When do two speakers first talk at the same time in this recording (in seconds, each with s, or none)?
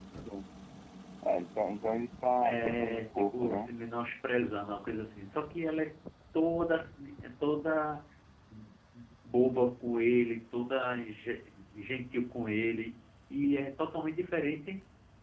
2.4 s